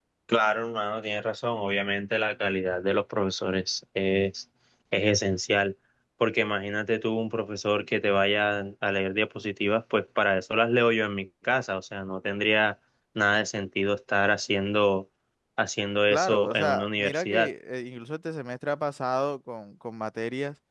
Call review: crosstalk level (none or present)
present